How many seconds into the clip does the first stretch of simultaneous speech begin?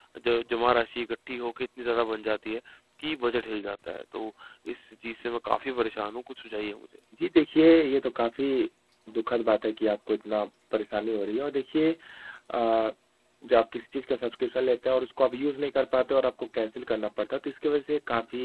none

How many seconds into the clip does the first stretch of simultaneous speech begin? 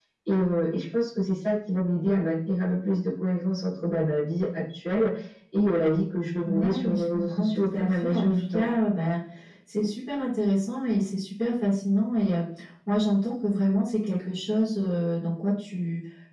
6.4 s

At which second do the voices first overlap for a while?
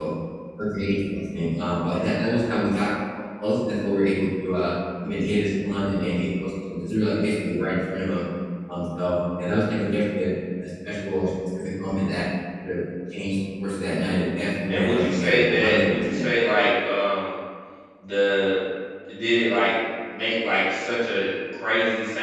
14.7 s

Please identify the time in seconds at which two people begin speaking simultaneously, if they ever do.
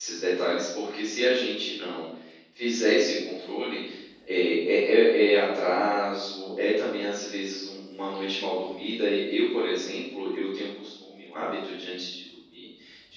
none

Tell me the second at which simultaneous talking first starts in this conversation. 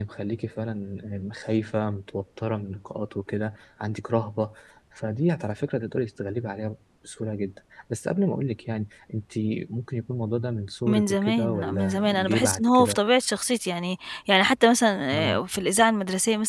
10.9 s

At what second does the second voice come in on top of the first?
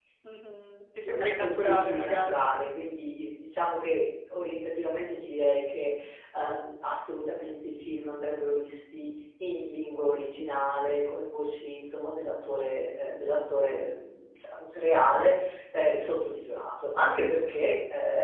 1.0 s

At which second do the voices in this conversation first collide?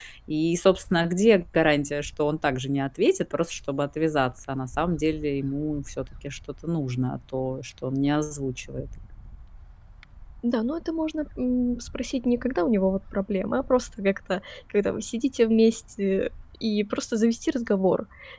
none

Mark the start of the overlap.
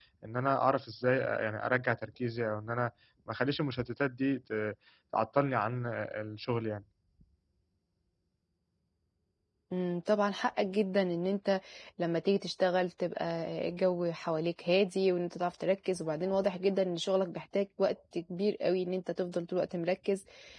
none

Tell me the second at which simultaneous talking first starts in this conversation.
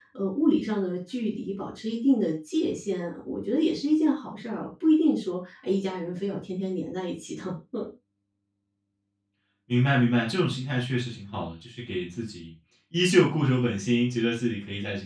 none

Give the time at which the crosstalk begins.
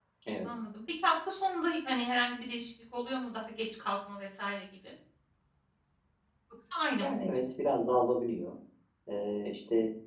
none

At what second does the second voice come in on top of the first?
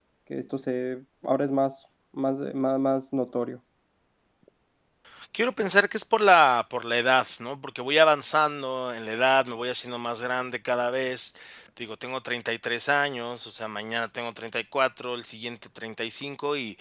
none

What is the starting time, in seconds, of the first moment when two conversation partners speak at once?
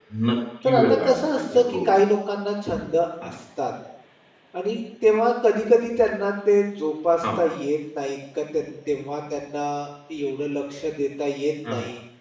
0.6 s

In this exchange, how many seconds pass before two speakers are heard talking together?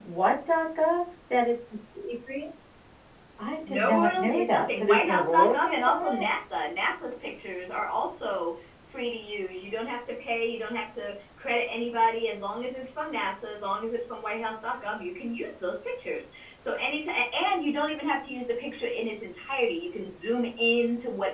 3.7 s

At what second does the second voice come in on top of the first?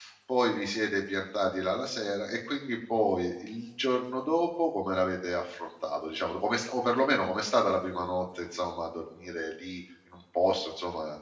none

